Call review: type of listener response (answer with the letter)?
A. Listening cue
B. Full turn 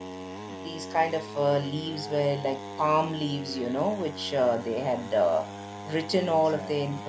A